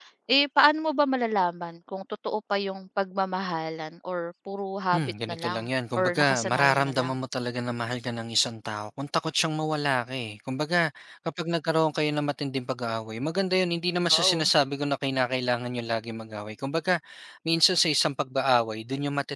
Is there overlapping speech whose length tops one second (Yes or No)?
Yes